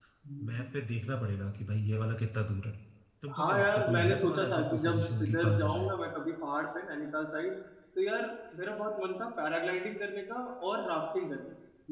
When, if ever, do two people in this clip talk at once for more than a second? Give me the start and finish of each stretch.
3.4-5.9

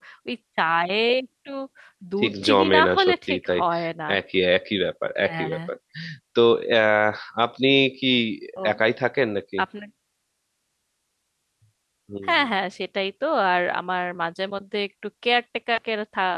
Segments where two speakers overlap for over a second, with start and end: 2.2-3.6

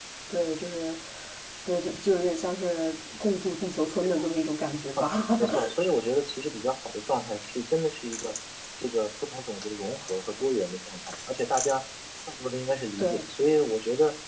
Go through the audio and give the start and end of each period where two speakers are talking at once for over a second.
none

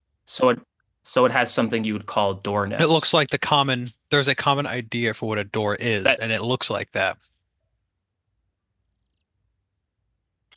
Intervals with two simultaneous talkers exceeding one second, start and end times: none

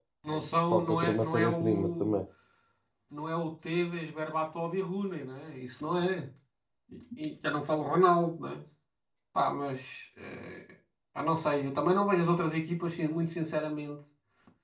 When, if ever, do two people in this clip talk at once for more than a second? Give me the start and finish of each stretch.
0.7-2.1

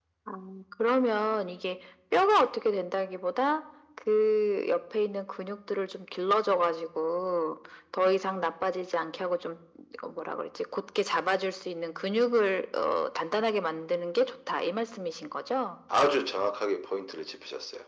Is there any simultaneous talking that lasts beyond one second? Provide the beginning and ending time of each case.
none

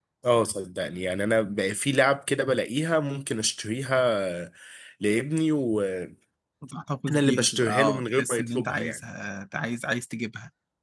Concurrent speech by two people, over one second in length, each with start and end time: 7.1-9.0

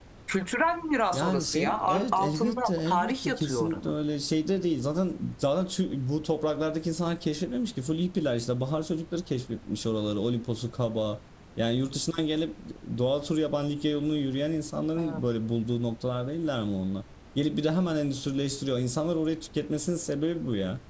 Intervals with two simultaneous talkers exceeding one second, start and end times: 1.1-3.9

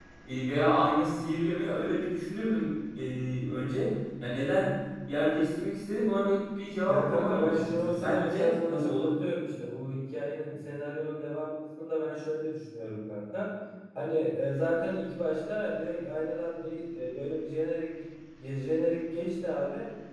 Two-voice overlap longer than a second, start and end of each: 6.9-9.1

